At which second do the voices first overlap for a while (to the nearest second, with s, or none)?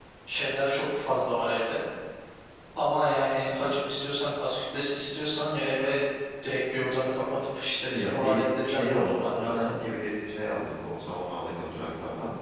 8 s